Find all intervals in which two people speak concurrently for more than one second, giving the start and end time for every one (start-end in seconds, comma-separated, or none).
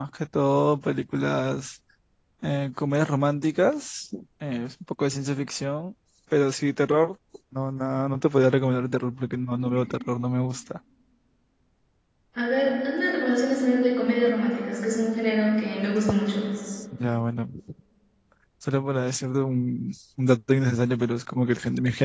none